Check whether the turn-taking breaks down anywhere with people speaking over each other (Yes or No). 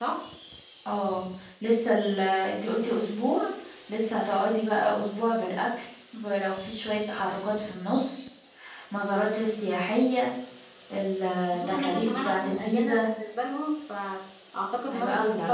Yes